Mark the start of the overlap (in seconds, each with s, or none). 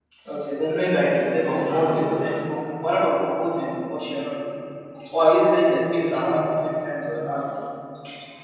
0.9 s